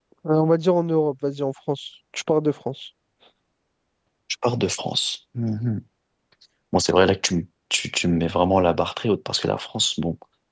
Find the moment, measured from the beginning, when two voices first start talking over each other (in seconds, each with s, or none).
none